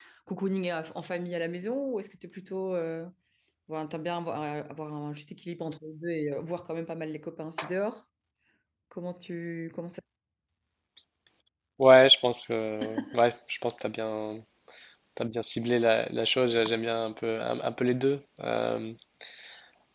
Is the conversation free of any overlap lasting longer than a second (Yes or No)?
Yes